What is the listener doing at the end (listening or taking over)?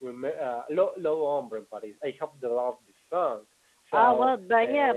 taking over